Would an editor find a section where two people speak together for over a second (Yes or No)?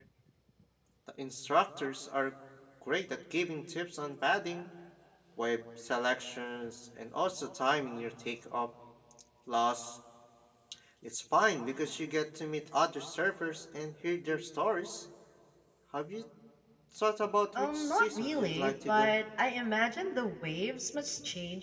Yes